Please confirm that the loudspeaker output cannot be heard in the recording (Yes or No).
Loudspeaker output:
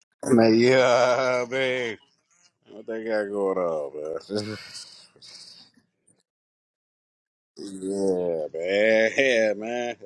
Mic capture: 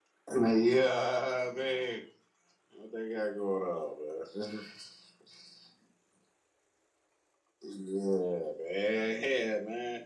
No